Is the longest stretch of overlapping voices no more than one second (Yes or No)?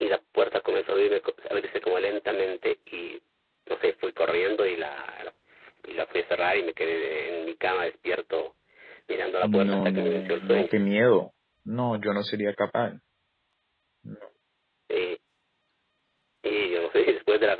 No